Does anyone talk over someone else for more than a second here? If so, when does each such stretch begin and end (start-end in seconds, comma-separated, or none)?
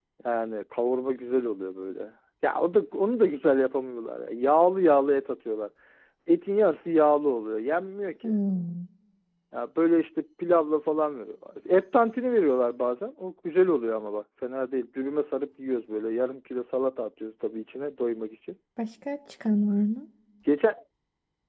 none